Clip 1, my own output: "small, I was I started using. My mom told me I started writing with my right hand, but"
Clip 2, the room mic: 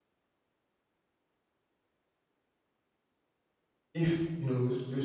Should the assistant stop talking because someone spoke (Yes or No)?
Yes